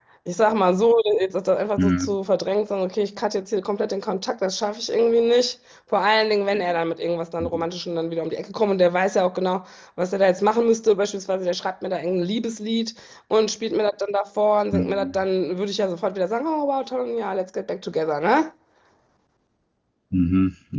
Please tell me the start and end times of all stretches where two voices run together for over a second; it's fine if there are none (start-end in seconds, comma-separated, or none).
none